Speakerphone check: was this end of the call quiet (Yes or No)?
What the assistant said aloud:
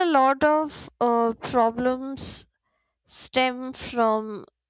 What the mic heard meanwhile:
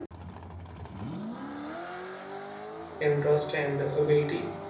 No